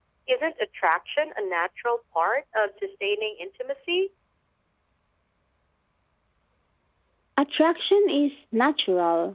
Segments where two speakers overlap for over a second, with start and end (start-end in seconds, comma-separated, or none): none